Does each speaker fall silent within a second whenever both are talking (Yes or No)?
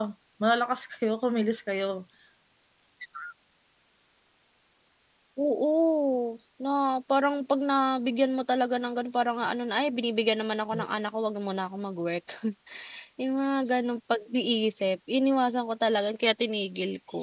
Yes